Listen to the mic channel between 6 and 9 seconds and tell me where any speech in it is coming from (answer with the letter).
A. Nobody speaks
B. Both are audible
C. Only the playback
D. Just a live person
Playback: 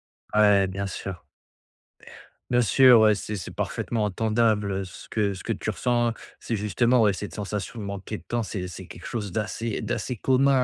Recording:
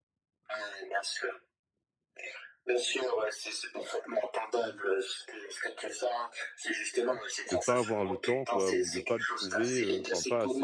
B